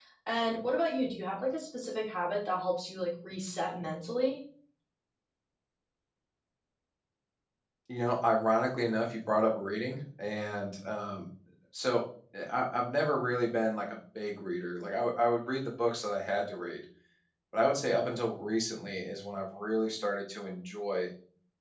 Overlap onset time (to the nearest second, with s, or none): none